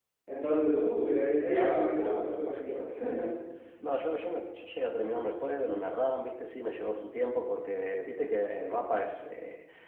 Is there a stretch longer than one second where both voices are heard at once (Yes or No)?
Yes